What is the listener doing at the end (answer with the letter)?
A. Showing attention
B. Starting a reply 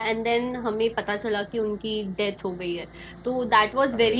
A